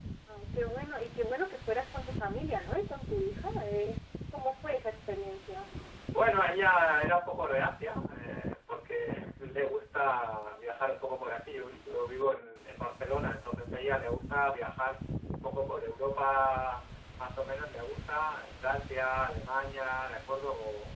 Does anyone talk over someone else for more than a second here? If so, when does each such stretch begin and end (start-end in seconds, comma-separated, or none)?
none